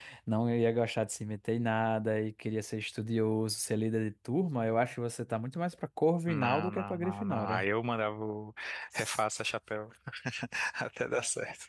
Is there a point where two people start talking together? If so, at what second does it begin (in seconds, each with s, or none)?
6.3 s